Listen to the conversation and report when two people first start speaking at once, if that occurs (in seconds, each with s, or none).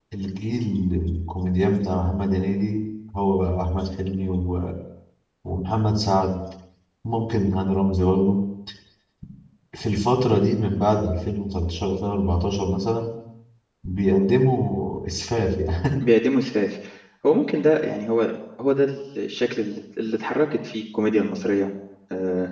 none